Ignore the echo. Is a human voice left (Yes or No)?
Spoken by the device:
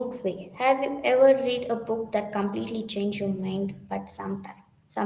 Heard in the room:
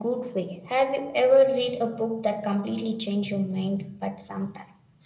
No